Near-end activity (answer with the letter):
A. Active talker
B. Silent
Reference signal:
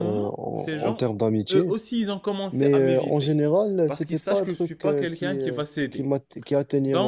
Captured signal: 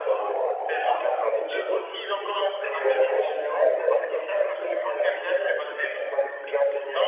B